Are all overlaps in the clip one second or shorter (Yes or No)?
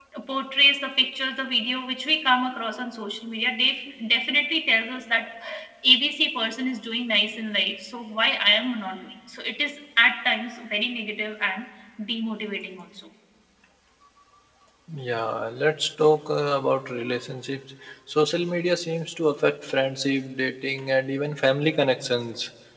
Yes